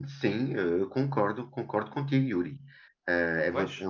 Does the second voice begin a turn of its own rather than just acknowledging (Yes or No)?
No